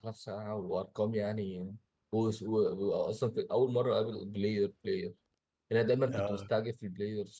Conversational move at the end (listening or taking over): listening